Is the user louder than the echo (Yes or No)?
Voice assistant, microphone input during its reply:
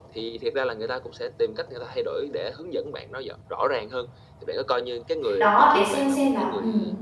Yes